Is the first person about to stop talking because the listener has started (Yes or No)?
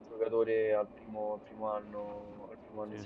No